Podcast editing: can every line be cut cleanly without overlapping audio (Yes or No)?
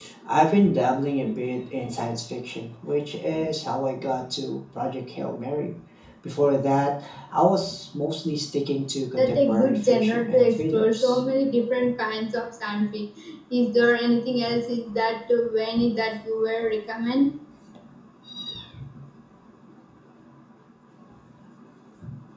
No